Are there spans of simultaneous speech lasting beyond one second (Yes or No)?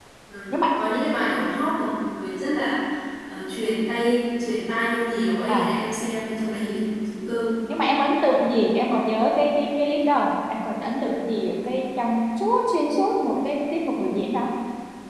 No